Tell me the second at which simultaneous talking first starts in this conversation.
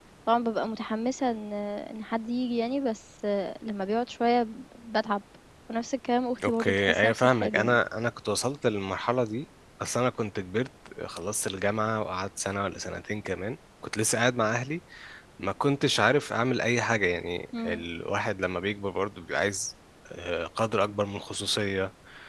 6.4 s

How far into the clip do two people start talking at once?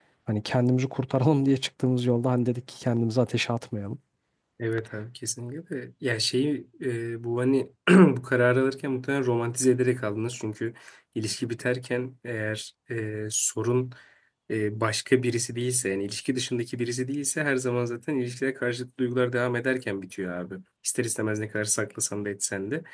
none

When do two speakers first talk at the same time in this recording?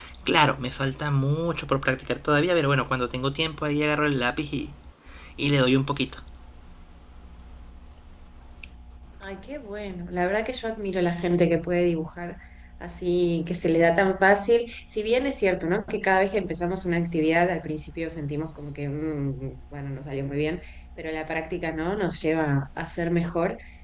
none

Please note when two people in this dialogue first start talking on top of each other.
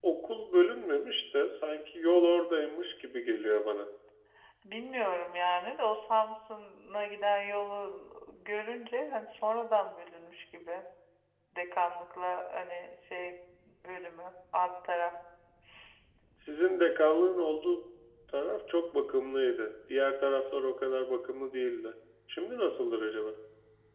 none

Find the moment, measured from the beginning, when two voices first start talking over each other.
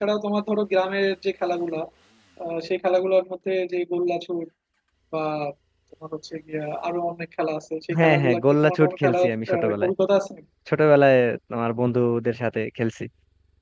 7.9 s

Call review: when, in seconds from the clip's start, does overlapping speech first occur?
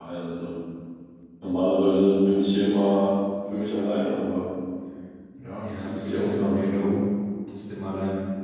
5.4 s

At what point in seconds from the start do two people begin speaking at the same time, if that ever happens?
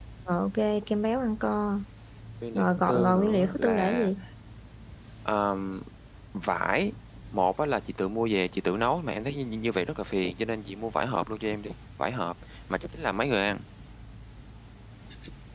2.5 s

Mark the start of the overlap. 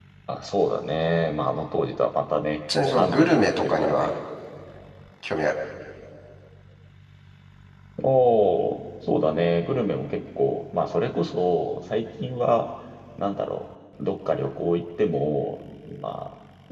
2.7 s

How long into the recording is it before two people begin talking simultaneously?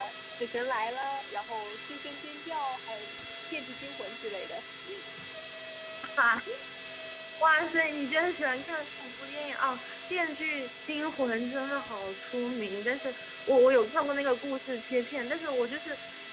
none

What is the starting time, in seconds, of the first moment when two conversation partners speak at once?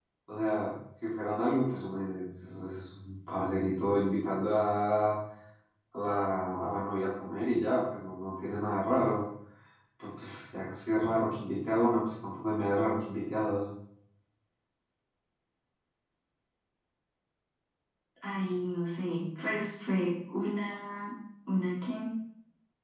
none

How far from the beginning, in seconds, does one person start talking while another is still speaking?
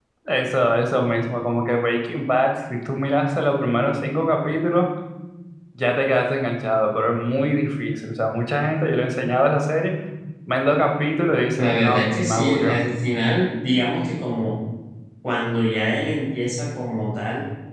11.6 s

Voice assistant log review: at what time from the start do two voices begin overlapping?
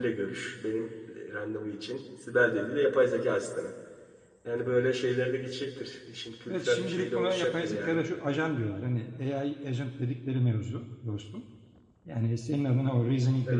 6.5 s

